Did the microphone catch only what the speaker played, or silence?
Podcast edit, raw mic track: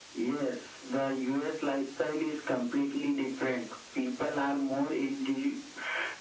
Yes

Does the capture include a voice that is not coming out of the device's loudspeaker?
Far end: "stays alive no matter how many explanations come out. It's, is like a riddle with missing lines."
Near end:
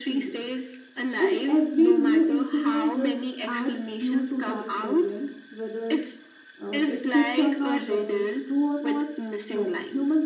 Yes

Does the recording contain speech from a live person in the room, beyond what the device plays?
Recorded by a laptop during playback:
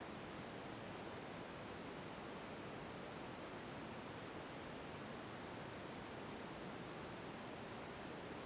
No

